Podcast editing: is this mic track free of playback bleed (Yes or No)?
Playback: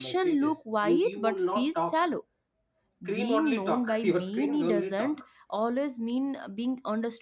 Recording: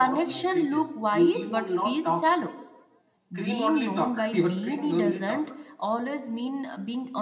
No